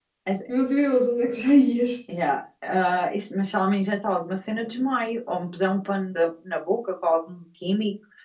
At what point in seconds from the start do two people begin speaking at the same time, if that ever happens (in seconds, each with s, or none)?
none